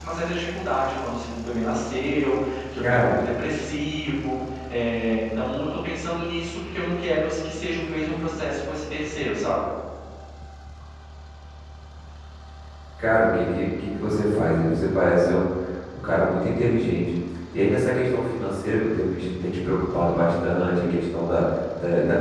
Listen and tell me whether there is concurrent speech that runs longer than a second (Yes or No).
No